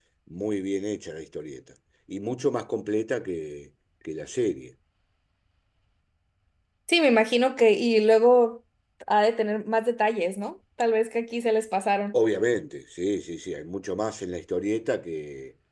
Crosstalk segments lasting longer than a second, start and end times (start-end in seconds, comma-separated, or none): none